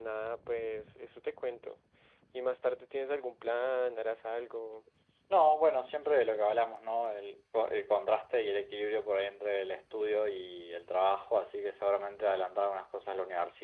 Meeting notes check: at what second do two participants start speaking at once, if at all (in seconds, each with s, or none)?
none